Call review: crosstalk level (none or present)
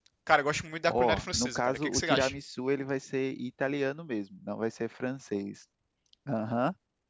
present